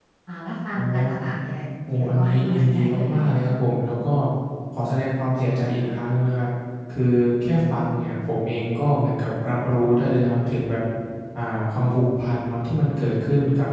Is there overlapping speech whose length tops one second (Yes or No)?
Yes